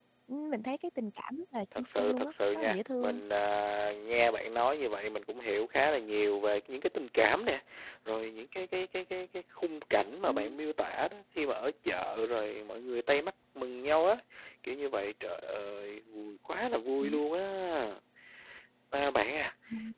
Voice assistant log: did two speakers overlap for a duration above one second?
Yes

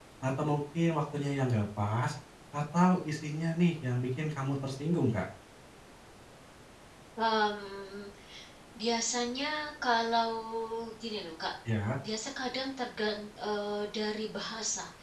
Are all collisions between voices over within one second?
Yes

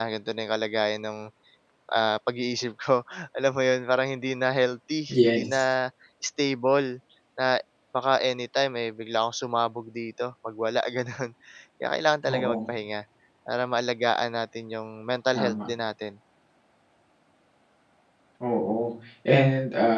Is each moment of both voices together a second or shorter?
Yes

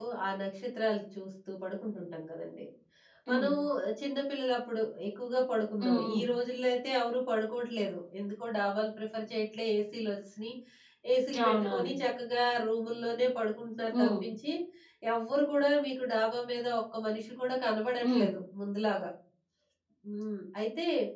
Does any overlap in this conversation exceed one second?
No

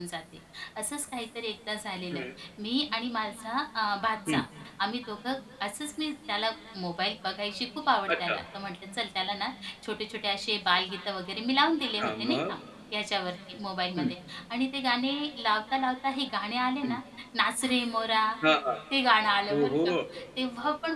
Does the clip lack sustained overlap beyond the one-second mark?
Yes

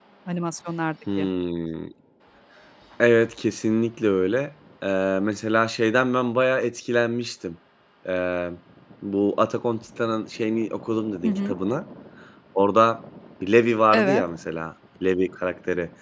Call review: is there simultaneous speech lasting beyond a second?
No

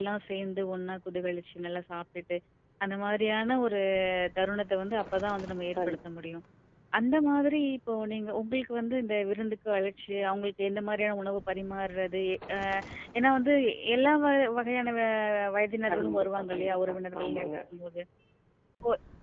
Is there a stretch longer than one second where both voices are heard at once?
Yes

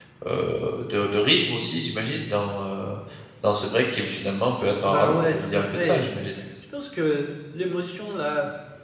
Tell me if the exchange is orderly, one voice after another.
No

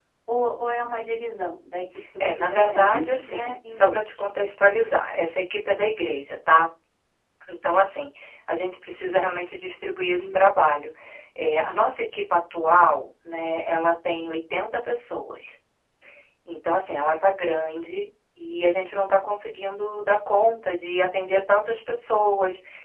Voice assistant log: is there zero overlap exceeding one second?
No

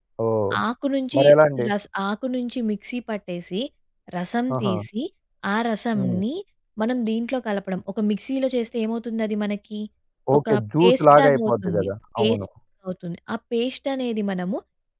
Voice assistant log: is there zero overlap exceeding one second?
No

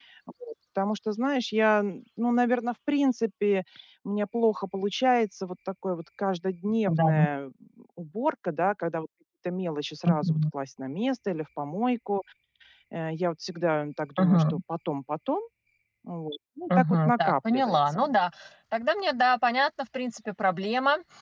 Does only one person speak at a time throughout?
No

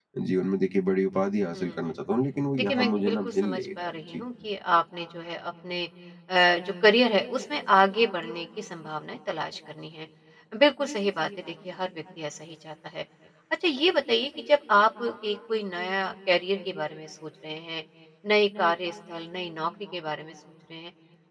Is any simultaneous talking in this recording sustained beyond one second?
Yes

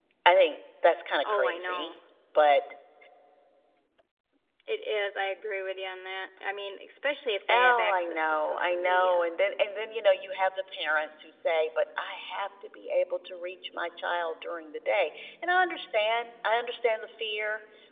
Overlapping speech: Yes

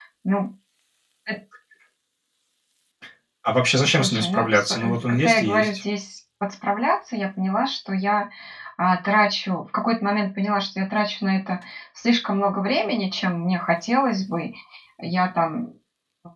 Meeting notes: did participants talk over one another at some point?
Yes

